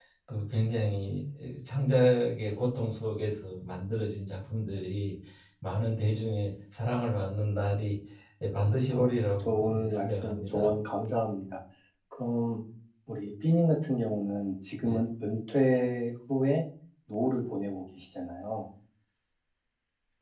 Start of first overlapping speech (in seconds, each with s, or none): 8.9 s